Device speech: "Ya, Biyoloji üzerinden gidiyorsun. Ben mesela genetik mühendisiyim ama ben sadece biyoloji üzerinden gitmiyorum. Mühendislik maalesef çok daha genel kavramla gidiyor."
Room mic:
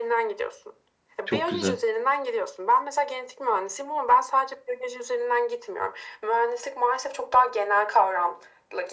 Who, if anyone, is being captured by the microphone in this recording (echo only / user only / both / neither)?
both